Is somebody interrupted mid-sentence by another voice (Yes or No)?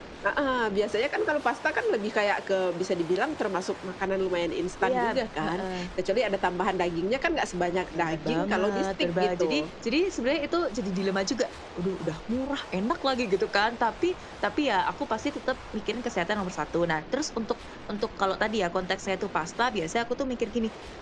Yes